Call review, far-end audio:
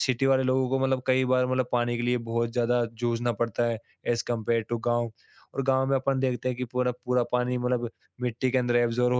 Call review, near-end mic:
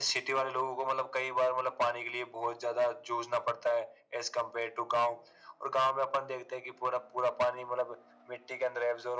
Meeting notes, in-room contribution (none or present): none